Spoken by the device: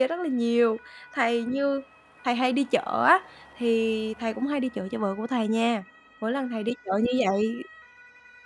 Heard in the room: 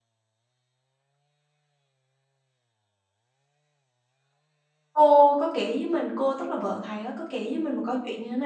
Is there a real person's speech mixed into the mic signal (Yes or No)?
Yes